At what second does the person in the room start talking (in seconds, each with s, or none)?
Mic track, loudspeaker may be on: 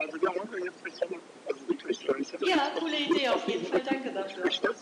2.4 s